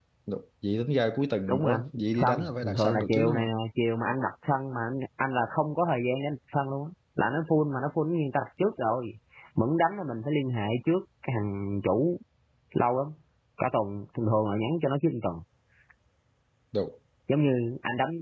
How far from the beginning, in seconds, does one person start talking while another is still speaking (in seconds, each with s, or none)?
1.5 s